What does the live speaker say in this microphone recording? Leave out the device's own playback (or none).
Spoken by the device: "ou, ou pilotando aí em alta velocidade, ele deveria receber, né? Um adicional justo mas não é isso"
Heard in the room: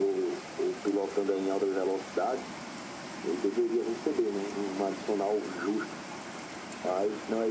none